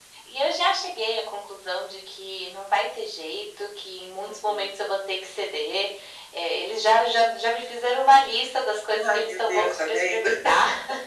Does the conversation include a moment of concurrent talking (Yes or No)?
Yes